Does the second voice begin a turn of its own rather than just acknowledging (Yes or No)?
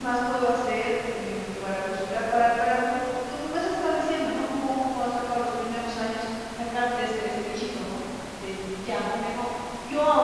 No